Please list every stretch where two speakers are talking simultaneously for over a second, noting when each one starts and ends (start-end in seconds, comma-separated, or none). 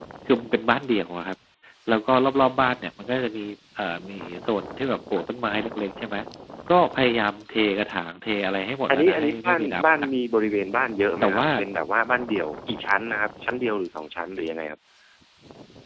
8.9-10.1